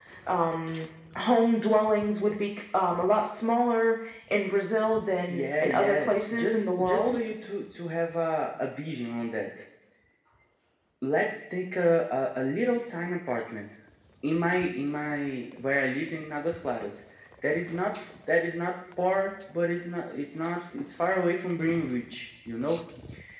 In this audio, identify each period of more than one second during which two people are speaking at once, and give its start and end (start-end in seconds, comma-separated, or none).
5.3-7.2